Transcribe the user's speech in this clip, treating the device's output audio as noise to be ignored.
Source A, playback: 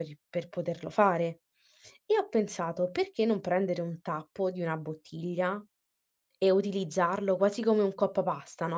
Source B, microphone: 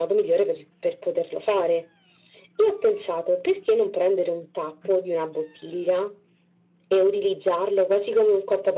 none

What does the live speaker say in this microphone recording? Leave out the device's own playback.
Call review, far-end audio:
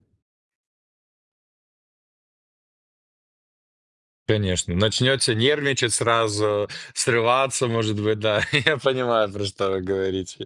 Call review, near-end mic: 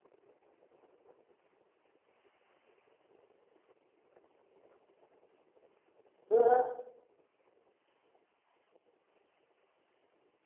Ну,

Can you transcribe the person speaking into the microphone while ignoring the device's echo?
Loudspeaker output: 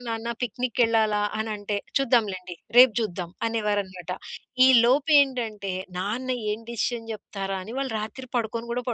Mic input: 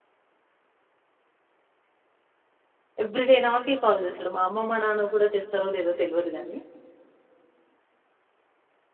ఎవ్రి‌డే నాకే కాల్ జేస్తాడు. మా అమ్మ మా నాన్నకు గూడా చేస్తారో లేదో తెల్వదు గానీ.

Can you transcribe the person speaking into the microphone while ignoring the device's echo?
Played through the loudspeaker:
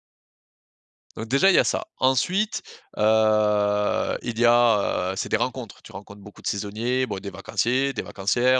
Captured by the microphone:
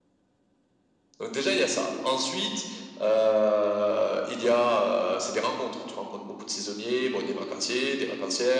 none

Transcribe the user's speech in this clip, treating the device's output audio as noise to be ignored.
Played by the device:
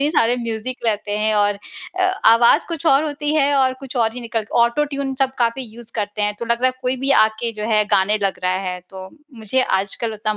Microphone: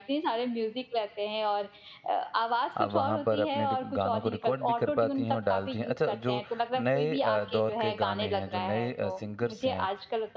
आप वहाँ पर अपने रिक गानों को रिकॉर्ड भी कर पाती हैं और डालती हैं। अच्छा जो नए अ, दौर के गाने हैं जो नए अ, सिंगर्स हैं,

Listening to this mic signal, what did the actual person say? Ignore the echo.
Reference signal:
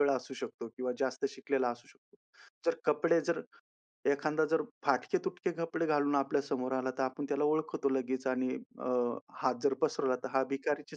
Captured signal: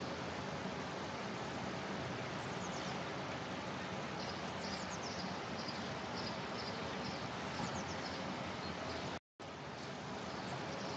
none

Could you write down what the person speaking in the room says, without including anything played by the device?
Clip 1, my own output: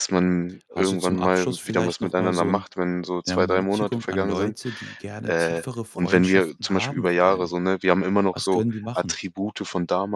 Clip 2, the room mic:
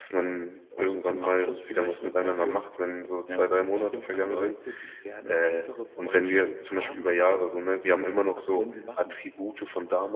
none

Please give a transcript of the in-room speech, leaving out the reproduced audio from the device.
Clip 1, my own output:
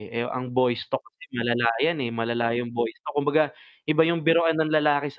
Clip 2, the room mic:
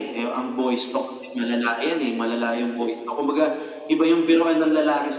none

